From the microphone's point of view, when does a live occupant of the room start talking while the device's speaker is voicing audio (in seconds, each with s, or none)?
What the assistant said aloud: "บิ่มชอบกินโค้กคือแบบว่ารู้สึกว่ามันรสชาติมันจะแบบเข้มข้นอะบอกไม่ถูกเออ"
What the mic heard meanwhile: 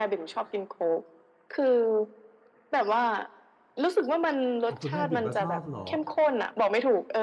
4.7 s